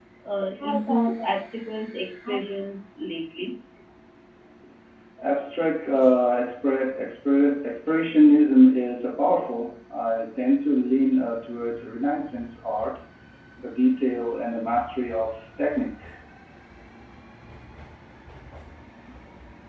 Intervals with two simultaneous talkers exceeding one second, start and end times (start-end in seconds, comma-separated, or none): none